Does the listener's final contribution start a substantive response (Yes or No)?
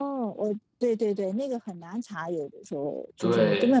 No